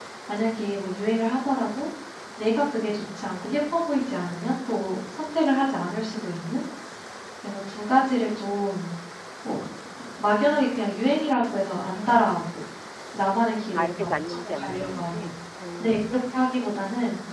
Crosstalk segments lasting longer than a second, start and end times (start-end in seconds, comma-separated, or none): 13.7-15.3